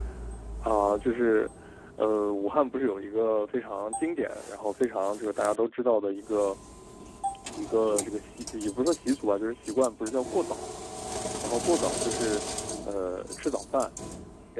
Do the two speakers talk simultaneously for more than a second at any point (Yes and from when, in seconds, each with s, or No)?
No